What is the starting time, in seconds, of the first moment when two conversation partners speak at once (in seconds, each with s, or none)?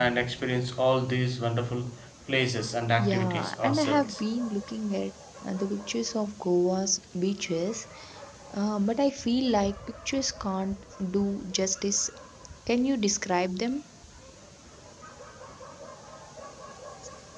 3.0 s